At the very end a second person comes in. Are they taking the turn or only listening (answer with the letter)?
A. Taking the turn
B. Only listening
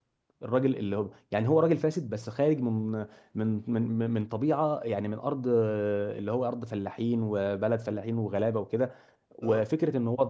B